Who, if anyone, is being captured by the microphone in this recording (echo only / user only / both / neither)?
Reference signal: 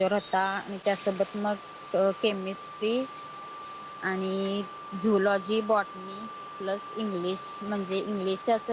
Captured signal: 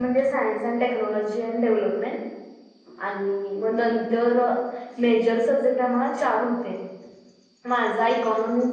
user only